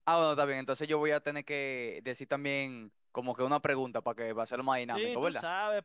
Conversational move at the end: taking over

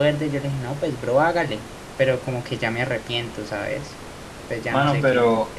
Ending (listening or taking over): taking over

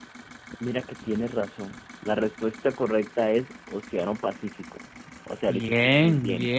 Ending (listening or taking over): taking over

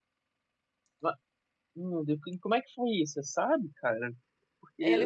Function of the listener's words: listening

